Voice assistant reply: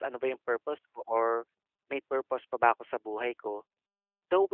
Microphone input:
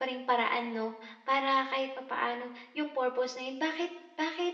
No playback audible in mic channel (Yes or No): Yes